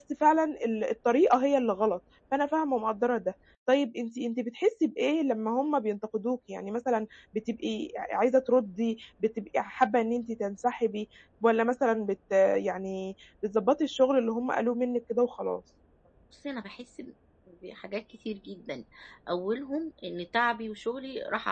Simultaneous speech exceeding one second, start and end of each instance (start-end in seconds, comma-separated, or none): none